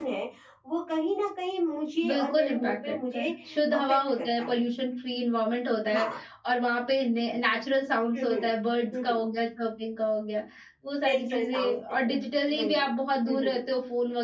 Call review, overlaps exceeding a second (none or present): present